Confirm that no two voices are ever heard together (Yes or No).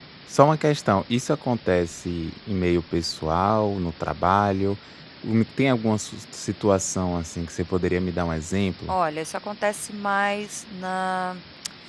Yes